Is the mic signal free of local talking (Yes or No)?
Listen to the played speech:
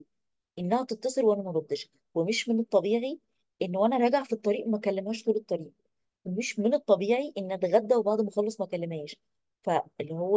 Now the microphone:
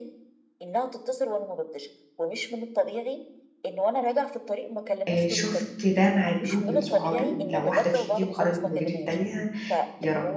No